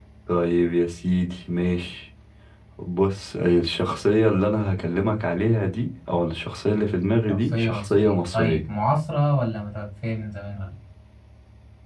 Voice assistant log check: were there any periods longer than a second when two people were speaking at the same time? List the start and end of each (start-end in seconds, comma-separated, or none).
7.3-8.6